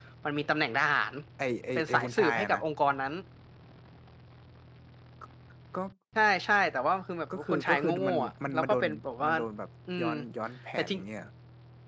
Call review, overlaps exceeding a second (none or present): present